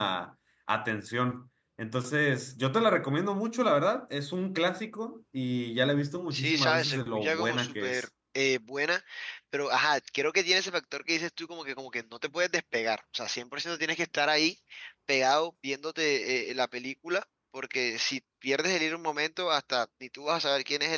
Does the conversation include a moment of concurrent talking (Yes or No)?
Yes